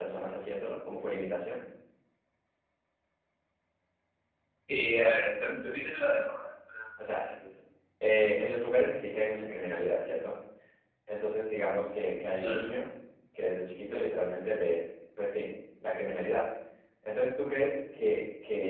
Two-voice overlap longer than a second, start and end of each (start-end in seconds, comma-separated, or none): none